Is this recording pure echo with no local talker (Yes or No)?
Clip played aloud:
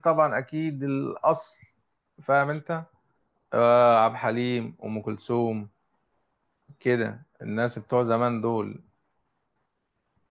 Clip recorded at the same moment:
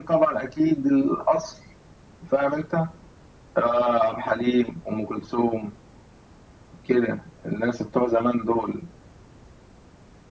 Yes